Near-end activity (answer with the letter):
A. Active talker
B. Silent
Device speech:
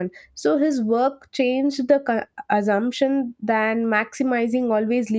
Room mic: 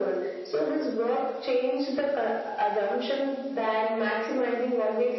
B